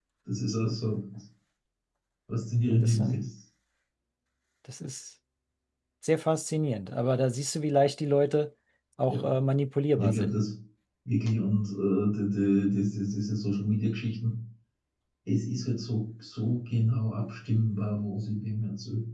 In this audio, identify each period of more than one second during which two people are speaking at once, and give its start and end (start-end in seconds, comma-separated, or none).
none